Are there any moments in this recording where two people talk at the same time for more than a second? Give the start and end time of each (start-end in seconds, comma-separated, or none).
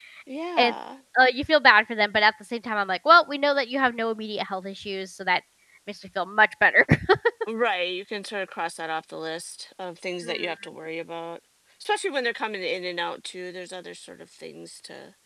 none